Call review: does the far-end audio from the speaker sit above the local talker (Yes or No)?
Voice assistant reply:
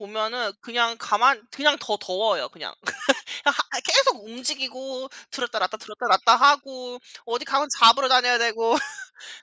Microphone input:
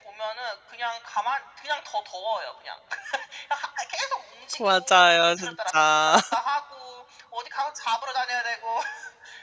No